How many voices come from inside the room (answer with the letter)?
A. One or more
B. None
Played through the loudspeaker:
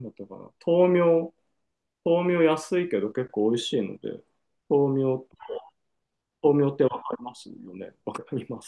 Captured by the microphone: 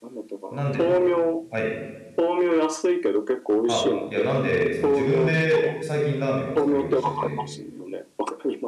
A